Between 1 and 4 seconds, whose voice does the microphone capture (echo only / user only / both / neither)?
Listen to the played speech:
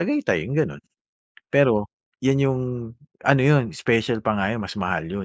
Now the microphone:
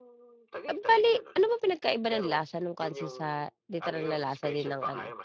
both